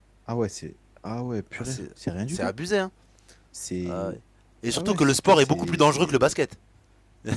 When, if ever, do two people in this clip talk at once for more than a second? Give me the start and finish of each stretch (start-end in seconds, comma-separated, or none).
4.7-6.1